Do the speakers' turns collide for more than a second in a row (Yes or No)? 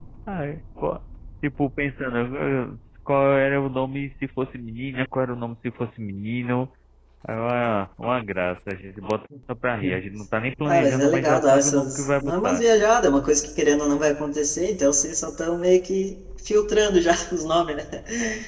Yes